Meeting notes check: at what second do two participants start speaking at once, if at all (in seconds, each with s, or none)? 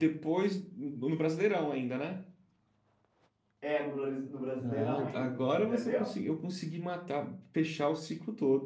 4.6 s